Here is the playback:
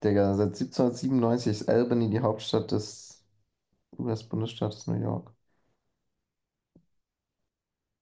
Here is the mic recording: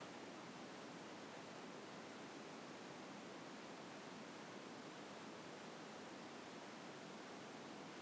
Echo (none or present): none